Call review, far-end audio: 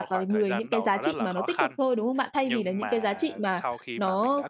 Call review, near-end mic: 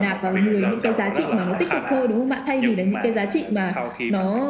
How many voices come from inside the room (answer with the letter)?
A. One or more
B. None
A